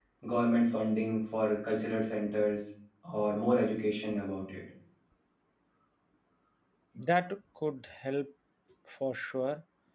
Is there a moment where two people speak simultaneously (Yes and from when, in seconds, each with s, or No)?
No